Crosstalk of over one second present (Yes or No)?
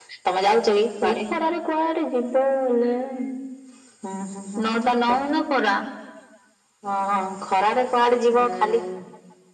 No